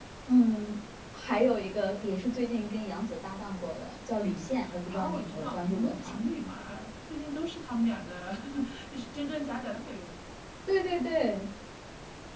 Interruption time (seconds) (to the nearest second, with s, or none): 5 s